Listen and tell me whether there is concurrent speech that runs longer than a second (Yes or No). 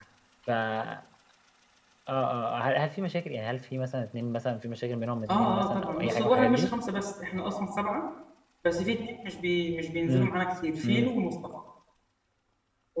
Yes